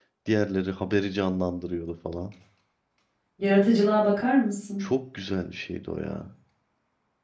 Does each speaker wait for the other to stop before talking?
Yes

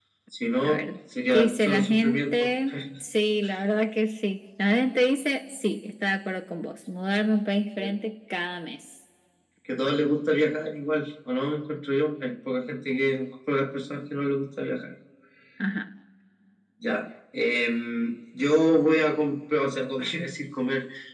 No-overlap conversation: No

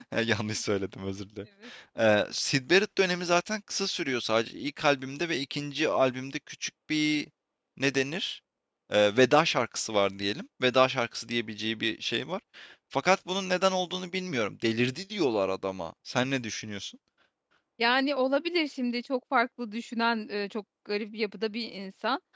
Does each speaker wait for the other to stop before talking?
Yes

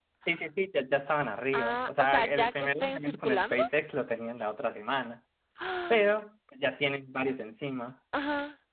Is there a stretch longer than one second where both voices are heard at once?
Yes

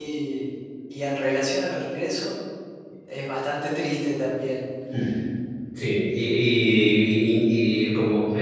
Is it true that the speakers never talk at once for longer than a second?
Yes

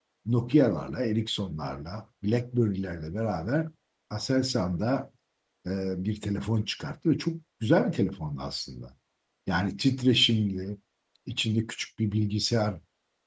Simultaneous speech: No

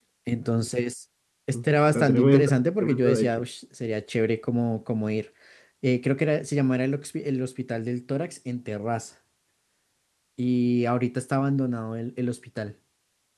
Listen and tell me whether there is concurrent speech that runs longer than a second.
Yes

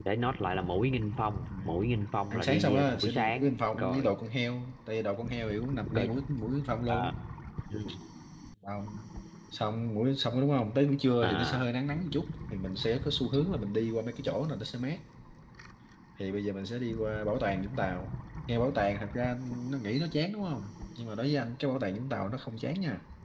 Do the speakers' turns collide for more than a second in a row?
Yes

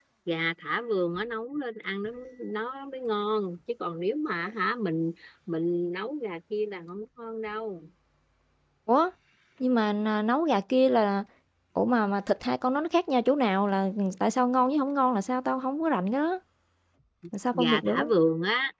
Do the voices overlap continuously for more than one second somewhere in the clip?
No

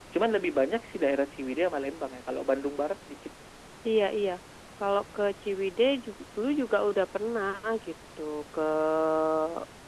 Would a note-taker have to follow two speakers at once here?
No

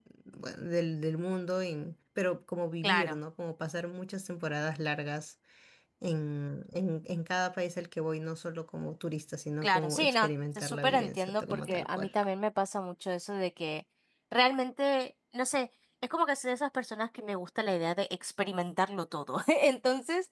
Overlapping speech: Yes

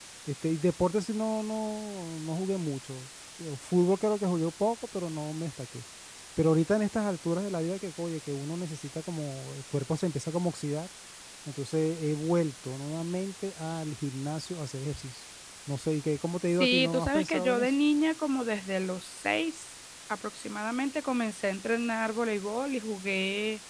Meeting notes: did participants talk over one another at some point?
Yes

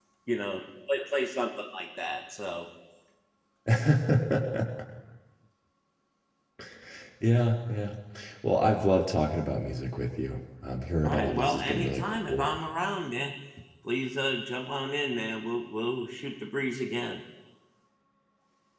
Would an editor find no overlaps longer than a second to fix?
No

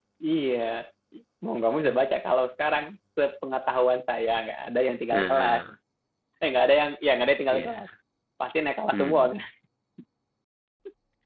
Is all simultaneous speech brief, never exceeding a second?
Yes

